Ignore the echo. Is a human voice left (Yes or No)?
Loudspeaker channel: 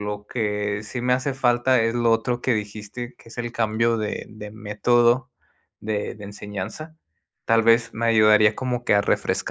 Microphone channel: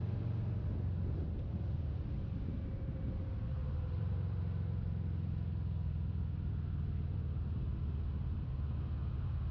No